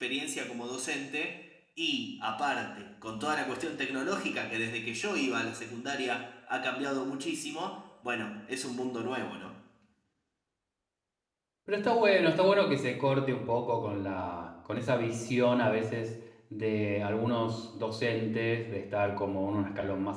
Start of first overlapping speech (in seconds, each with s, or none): none